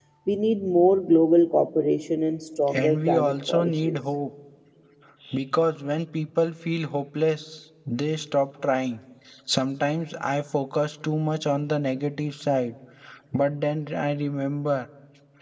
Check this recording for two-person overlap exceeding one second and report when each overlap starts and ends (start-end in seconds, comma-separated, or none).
2.7-4.0